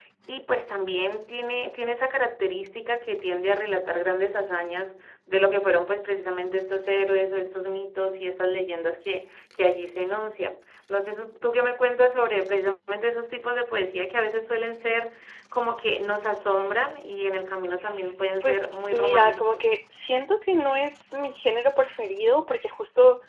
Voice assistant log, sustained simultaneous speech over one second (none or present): present